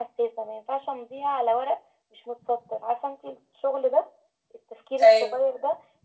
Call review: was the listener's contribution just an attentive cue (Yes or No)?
Yes